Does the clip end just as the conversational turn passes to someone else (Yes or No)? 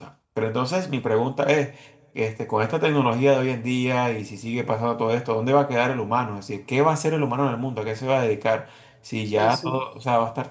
No